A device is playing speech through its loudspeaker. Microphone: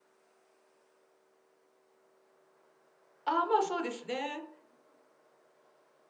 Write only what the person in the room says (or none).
ああ、まあ、そうですね。